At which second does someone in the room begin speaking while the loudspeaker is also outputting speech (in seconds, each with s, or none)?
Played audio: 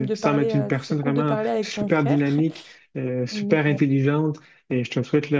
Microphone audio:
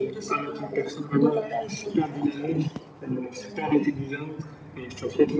none